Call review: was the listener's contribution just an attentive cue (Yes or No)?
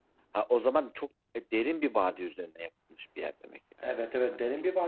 No